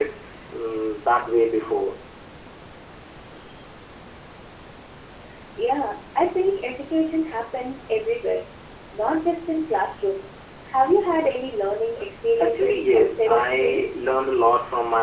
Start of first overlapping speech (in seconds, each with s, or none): 12.4 s